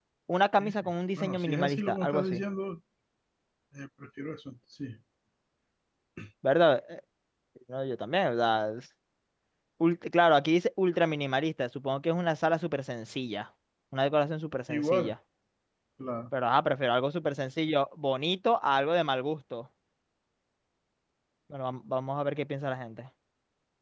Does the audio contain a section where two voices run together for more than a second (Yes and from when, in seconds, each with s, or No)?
Yes, from 0.6 s